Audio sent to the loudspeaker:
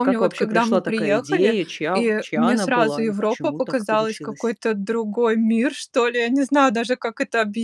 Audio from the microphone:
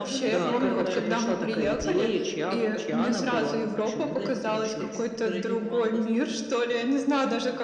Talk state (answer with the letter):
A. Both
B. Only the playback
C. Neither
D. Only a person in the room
A